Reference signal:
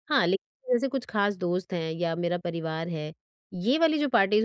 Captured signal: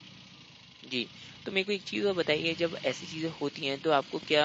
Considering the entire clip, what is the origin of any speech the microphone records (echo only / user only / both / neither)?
user only